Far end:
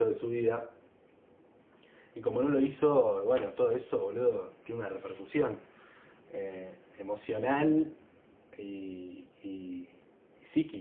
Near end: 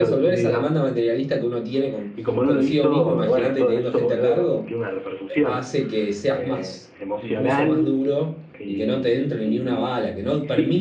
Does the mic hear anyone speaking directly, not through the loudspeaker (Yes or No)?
Yes